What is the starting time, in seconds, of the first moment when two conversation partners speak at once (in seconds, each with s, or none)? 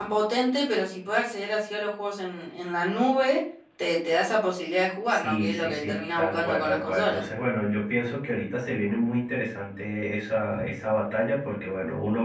5.0 s